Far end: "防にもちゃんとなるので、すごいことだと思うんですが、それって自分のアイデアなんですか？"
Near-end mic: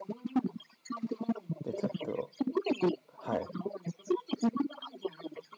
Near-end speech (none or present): present